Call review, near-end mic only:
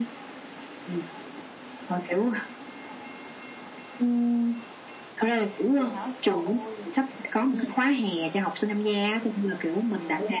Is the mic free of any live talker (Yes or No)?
No